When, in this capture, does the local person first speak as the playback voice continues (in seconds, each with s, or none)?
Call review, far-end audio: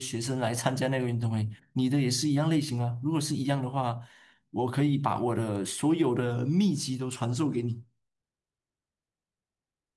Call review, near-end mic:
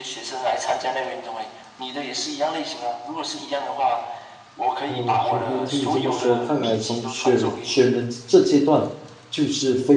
4.8 s